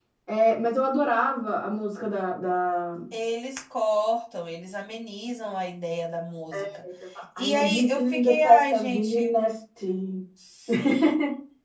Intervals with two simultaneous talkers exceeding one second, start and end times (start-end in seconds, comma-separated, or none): 7.4-9.3